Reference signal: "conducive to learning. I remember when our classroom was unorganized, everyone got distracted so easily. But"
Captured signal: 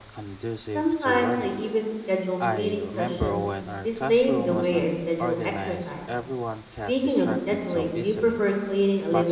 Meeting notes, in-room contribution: present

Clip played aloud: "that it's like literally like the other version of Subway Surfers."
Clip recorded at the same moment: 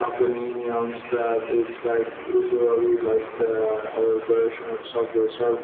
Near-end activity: none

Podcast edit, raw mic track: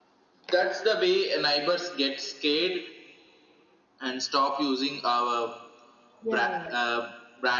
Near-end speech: present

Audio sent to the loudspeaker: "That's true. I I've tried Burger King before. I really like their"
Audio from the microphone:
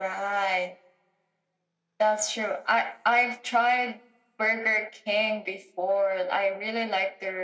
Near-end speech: none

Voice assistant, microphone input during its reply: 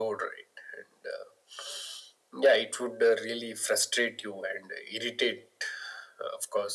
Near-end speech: none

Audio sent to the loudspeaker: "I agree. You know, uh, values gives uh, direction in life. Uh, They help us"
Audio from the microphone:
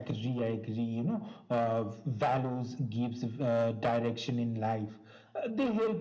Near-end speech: none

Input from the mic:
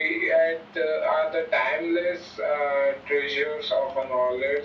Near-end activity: none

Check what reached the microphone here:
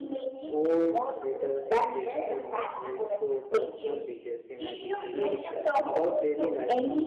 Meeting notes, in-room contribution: present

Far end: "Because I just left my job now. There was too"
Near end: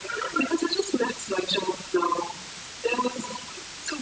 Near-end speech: none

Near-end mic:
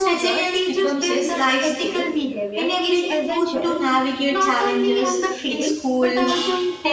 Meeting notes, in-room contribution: present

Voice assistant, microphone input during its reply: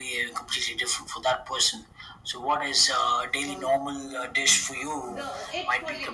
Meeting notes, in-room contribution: present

